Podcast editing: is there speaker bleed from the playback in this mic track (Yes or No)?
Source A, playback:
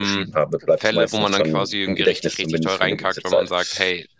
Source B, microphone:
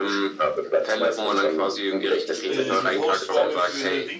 Yes